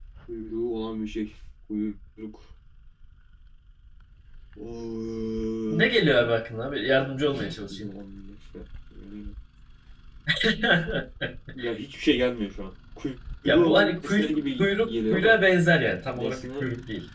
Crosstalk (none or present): present